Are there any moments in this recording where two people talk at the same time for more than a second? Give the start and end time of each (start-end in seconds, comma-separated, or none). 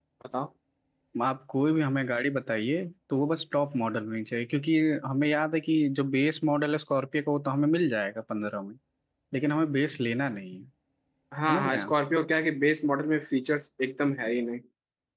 none